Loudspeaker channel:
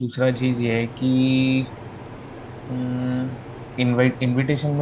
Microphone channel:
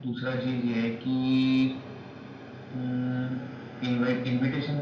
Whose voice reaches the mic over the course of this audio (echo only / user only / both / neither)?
echo only